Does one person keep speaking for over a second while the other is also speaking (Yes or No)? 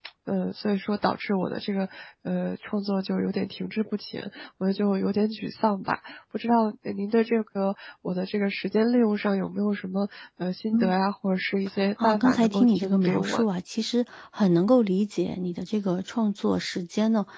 Yes